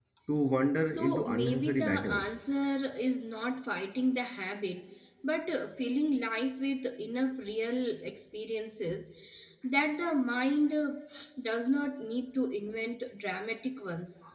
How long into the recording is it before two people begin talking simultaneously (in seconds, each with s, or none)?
0.8 s